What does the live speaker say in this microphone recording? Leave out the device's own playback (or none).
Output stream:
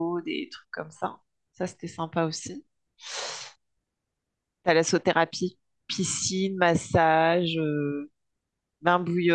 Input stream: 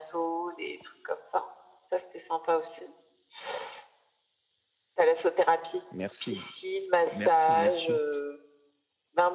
Merci. Merci, merci.